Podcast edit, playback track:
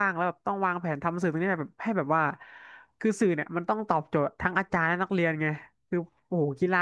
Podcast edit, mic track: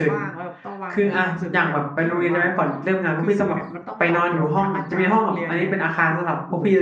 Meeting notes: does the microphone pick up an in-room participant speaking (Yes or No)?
Yes